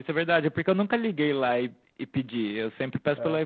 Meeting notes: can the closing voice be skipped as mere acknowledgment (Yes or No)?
Yes